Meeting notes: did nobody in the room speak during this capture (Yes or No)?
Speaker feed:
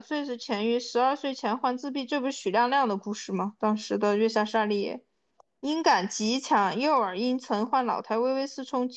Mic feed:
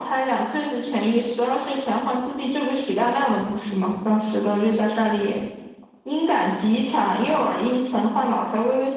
Yes